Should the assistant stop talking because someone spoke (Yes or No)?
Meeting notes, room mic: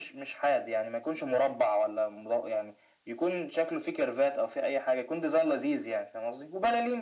No